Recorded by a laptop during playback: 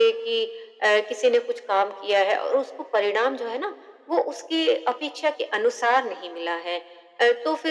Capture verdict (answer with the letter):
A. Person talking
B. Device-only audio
B